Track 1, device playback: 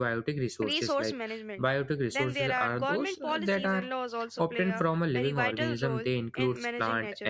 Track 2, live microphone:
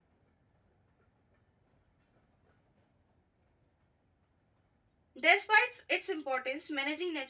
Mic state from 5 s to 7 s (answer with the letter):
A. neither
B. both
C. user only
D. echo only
C